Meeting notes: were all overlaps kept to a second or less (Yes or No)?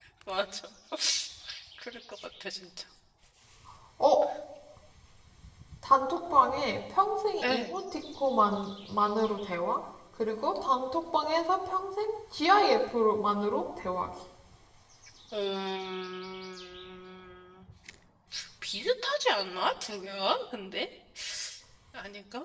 Yes